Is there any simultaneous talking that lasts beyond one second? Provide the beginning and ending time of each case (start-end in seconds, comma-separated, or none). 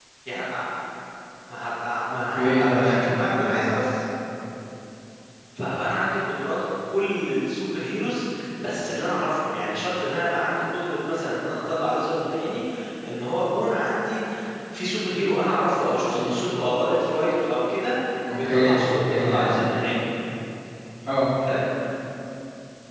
2.1-3.6, 18.4-20.0